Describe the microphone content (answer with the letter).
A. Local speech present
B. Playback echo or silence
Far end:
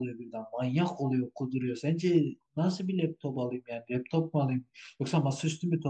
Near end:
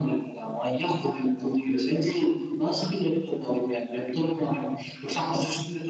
B